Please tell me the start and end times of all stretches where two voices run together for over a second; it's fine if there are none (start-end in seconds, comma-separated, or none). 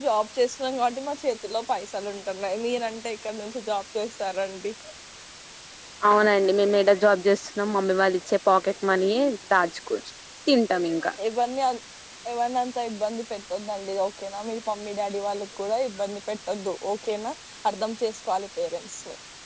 none